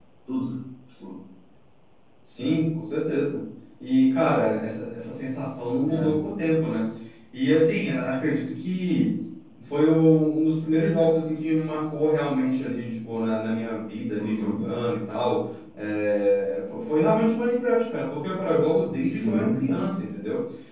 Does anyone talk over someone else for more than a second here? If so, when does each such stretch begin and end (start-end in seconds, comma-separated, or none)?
none